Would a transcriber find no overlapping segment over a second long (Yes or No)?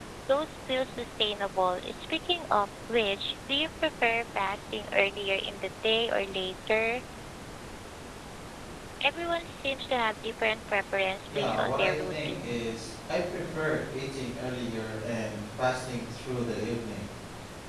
No